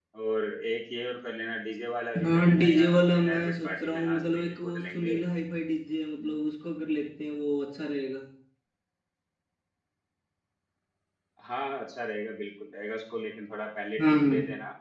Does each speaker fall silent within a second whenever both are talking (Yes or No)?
No